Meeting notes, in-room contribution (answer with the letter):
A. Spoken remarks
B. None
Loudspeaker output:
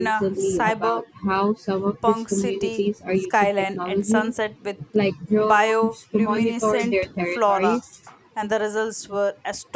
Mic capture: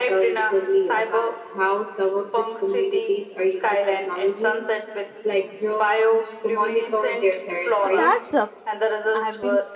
A